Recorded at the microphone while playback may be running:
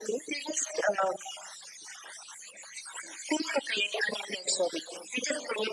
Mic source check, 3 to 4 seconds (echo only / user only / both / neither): echo only